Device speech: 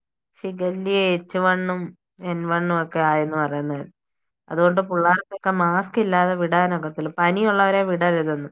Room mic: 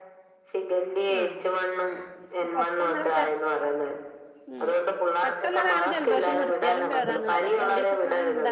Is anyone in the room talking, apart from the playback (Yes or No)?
Yes